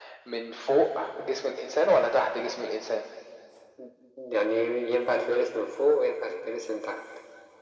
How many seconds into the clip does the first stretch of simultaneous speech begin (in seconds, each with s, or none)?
none